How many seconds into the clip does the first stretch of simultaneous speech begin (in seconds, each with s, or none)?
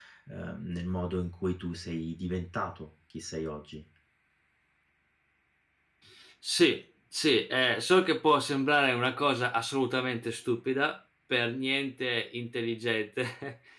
none